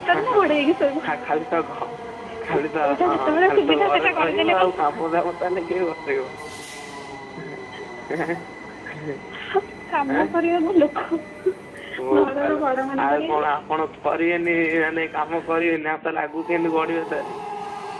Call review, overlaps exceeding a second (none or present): present